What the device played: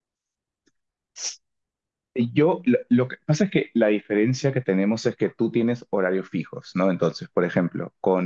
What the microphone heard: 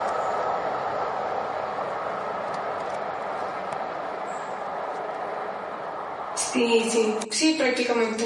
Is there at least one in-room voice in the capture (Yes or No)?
Yes